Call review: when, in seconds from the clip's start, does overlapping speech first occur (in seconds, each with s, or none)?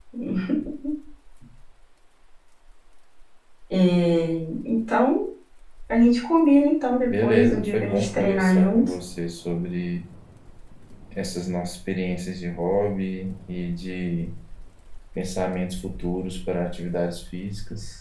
7.1 s